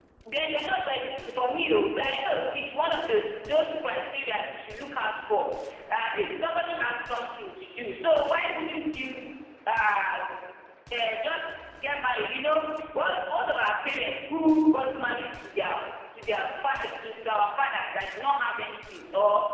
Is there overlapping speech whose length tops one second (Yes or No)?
No